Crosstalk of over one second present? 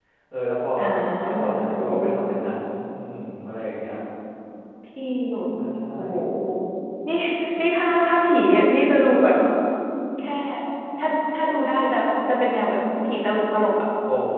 No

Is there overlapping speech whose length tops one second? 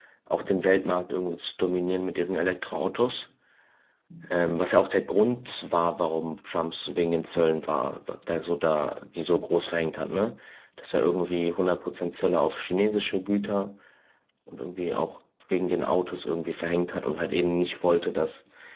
No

